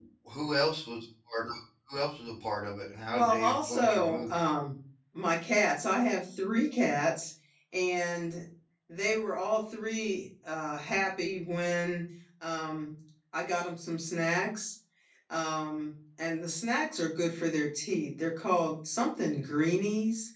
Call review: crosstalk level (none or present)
present